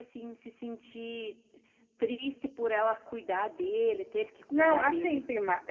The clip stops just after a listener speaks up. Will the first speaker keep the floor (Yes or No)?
No